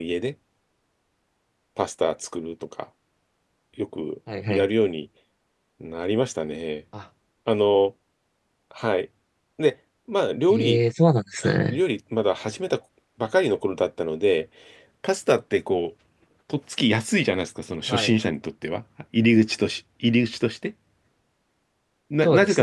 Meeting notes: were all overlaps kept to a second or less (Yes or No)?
Yes